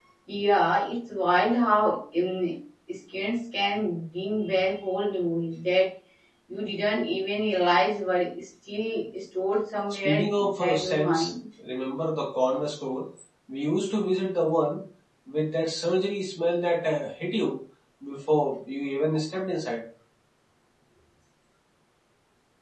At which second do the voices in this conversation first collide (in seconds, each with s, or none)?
9.9 s